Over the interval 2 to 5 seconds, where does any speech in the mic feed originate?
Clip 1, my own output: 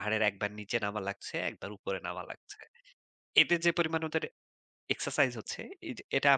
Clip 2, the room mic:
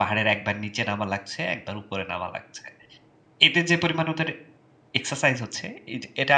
echo only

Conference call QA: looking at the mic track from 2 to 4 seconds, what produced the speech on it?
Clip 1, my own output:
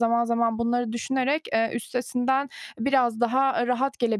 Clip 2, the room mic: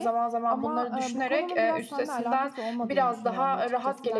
both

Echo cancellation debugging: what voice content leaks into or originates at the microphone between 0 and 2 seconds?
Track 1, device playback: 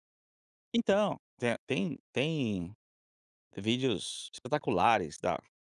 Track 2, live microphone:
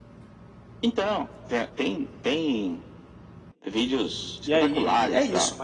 echo only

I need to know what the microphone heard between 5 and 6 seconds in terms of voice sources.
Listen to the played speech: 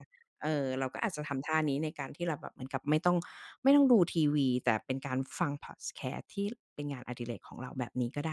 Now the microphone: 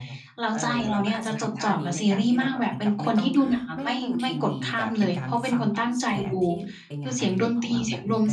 both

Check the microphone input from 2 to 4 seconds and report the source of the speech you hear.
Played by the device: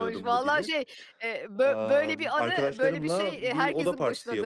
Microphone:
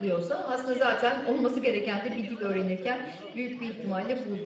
both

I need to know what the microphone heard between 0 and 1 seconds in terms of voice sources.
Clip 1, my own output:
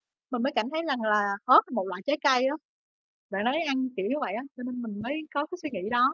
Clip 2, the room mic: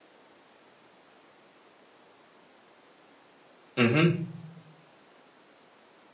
neither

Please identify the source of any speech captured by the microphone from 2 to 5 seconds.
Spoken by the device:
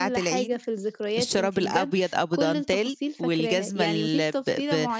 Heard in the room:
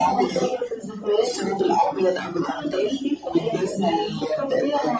echo only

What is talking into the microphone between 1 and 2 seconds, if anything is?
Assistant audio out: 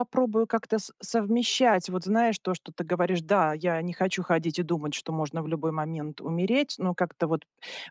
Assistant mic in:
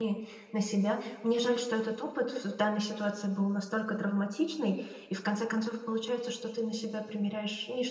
user only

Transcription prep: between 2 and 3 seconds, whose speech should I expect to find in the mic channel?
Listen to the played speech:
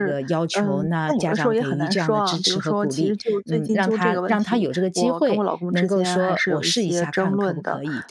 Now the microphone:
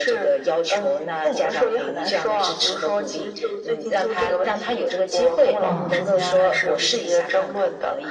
echo only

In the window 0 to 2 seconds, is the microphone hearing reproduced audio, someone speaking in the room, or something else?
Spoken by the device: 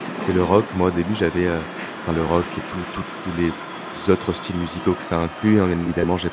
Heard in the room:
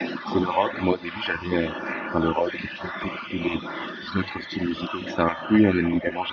echo only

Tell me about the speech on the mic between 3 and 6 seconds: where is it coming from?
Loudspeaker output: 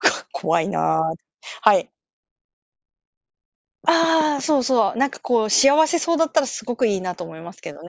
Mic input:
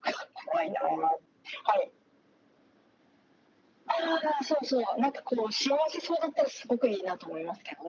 echo only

